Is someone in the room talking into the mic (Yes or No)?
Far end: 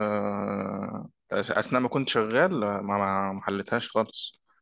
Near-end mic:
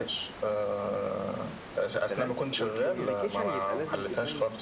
Yes